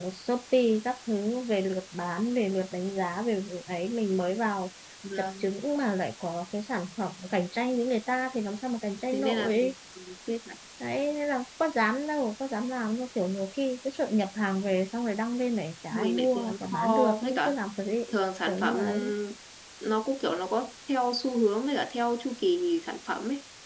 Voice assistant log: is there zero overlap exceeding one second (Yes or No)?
No